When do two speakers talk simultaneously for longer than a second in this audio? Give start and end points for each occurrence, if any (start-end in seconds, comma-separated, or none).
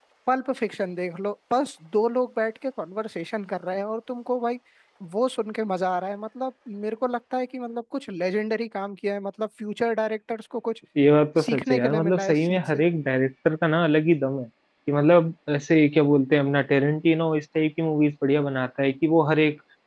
11.4-12.8